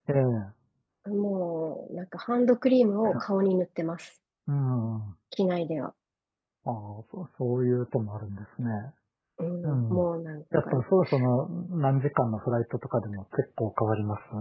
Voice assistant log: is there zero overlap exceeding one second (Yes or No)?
Yes